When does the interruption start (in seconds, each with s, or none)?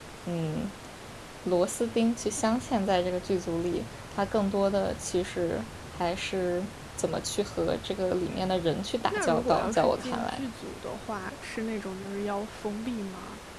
9.1 s